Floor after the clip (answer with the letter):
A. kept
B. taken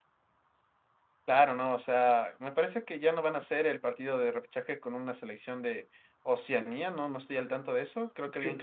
A